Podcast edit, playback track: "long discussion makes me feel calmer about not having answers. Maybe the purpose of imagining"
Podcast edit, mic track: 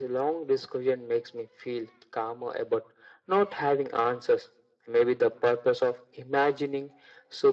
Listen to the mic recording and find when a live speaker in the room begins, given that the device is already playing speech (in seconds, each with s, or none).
none